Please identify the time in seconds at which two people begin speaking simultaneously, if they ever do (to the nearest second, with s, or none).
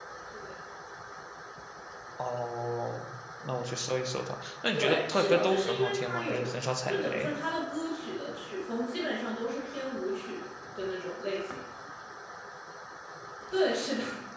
5 s